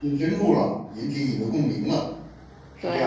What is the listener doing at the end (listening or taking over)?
taking over